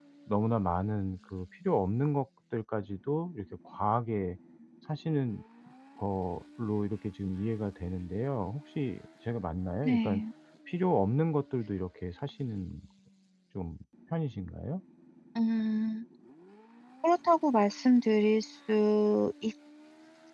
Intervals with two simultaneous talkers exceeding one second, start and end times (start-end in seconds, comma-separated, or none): none